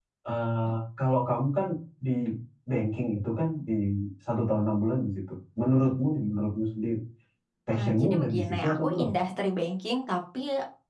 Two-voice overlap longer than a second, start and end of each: 7.7-9.1

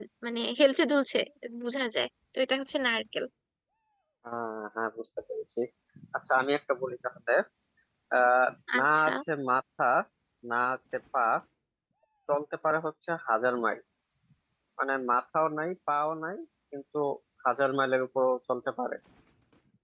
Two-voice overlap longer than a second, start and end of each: none

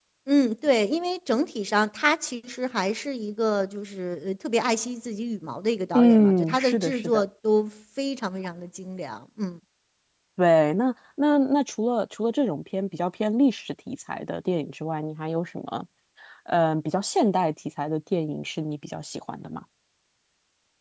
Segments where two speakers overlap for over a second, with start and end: 5.9-7.2

